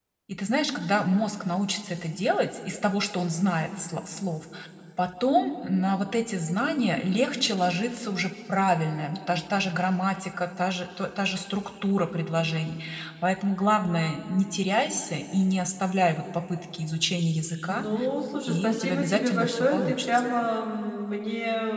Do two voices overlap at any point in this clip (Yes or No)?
Yes